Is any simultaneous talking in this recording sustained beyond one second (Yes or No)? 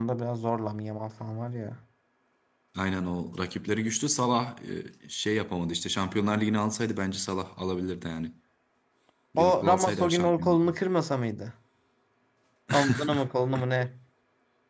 Yes